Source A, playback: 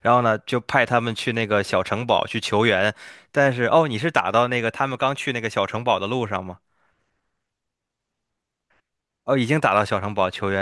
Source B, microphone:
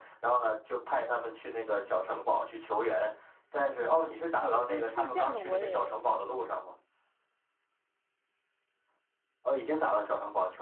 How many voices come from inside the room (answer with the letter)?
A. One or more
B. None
A